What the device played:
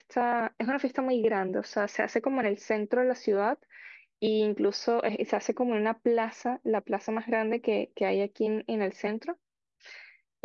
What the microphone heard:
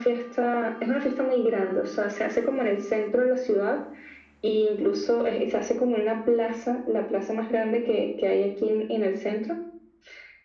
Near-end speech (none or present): none